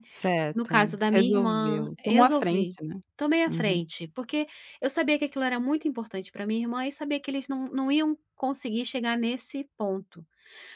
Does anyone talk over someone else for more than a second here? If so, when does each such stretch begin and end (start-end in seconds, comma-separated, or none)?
0.7-2.6